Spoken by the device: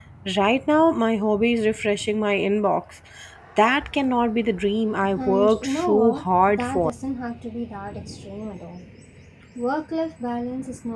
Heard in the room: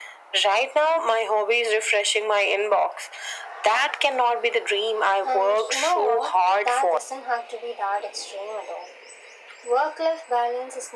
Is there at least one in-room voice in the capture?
No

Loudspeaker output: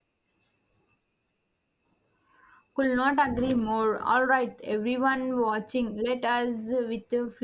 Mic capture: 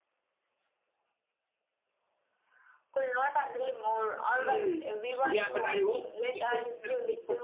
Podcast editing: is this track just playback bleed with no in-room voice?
No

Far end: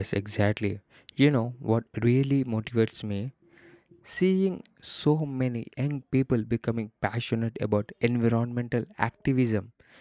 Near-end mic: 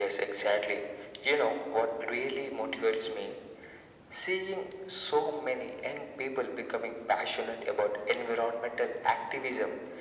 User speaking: No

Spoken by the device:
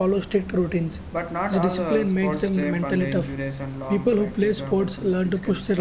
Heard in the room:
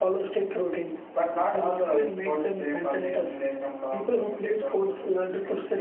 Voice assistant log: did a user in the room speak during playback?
No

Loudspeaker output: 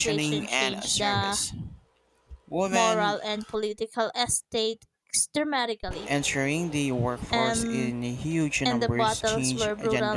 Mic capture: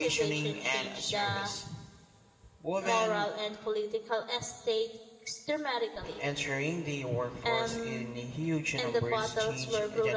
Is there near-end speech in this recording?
Yes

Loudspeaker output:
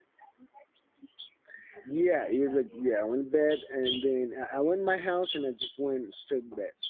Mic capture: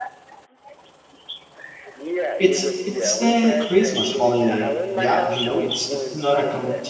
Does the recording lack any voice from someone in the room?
No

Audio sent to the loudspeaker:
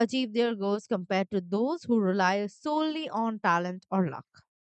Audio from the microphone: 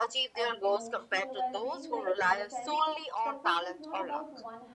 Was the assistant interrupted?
Yes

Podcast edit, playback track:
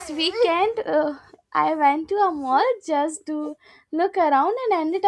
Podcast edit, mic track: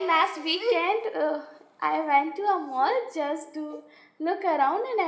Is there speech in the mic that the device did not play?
No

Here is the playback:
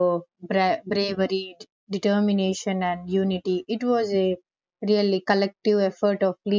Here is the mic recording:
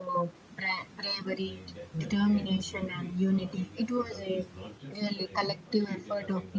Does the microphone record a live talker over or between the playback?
Yes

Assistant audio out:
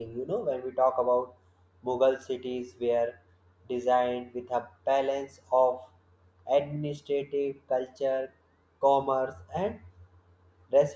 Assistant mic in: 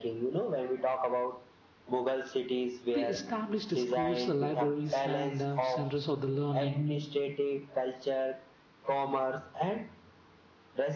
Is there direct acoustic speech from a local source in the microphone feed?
Yes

